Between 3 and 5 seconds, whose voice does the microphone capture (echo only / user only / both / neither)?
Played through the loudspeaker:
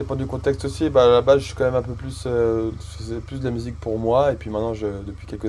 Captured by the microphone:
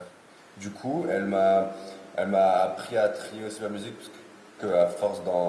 user only